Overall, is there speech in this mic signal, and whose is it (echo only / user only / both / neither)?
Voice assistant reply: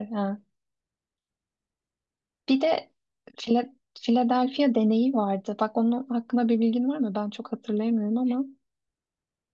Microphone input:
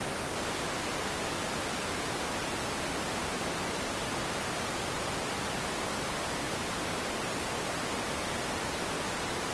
neither